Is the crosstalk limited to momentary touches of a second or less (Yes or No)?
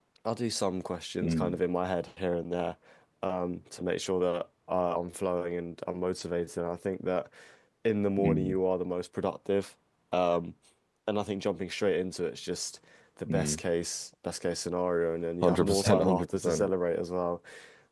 No